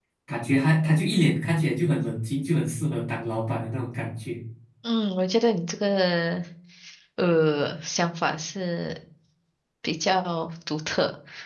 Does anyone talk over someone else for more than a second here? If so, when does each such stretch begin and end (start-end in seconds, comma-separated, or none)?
none